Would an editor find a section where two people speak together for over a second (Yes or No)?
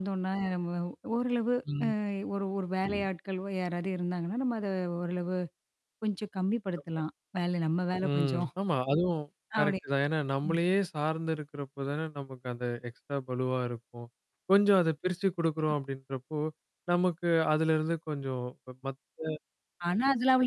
No